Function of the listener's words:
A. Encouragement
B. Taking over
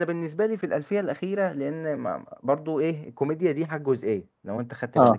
A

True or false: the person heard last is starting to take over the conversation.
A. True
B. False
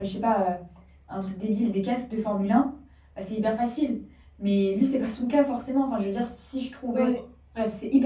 B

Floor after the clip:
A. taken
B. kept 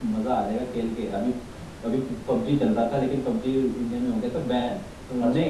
B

